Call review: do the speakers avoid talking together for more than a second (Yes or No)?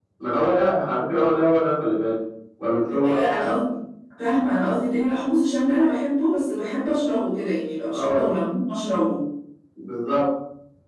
Yes